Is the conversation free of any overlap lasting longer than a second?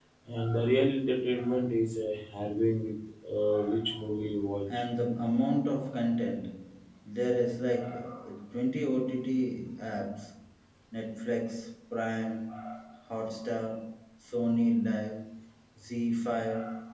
Yes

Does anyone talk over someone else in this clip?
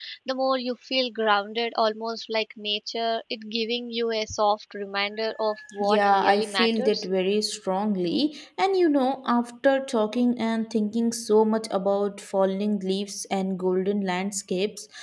Yes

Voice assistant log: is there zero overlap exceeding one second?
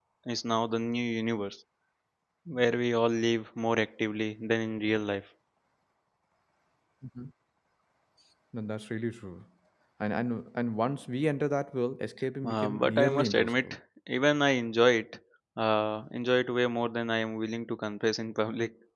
No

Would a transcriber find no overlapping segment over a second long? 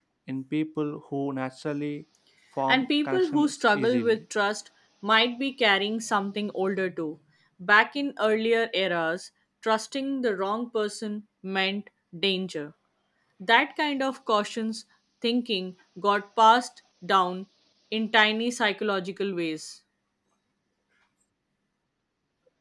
No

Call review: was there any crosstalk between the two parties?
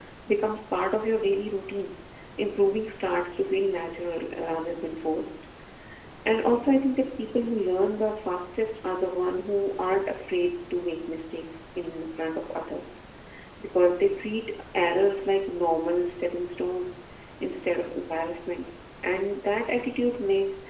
No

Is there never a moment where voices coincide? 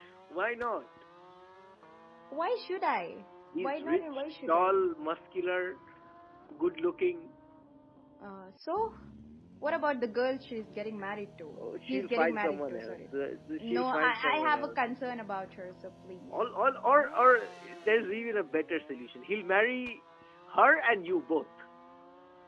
No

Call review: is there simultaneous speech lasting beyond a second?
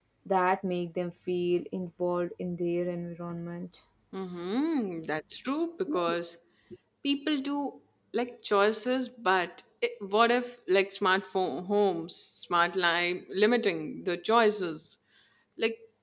No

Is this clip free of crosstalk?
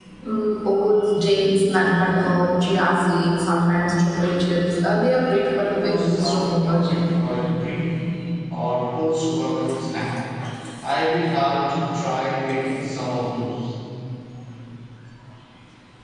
No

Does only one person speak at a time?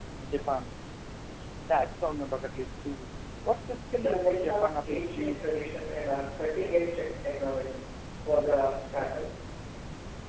No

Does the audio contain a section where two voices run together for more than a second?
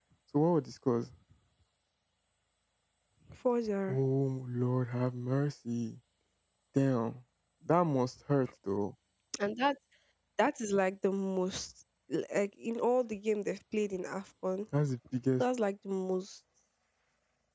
No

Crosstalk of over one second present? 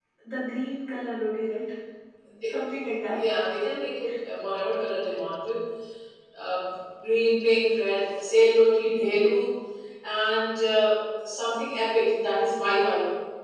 No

